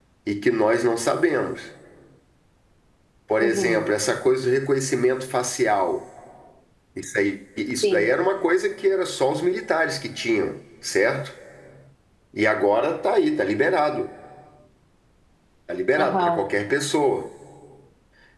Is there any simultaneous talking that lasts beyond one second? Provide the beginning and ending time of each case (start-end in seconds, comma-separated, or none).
none